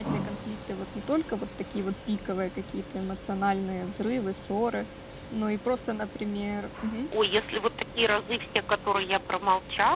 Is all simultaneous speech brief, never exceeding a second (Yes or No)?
Yes